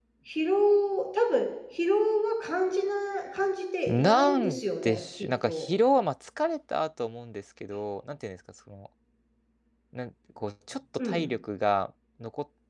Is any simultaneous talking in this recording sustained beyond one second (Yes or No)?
Yes